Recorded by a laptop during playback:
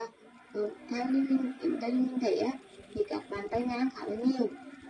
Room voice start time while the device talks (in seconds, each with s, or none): none